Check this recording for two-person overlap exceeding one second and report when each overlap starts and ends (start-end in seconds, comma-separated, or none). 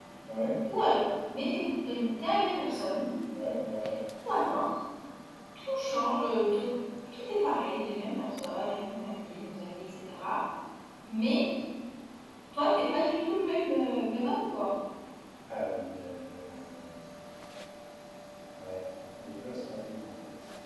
none